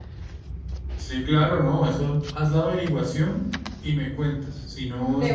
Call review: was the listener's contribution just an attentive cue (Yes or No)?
Yes